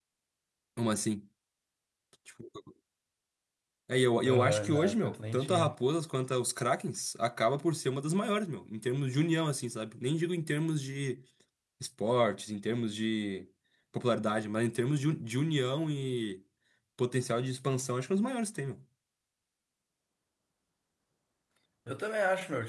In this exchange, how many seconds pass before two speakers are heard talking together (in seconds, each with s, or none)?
4.2 s